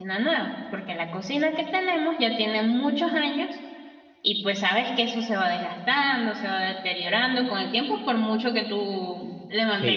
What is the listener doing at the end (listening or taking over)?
taking over